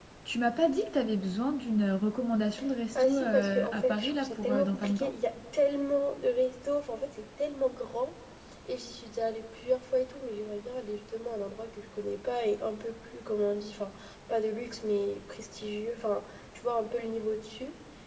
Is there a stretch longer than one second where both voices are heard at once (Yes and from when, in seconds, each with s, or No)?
Yes, from 3.0 s